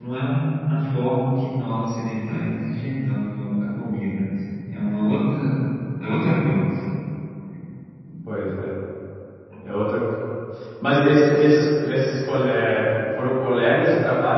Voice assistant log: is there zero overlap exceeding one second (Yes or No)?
Yes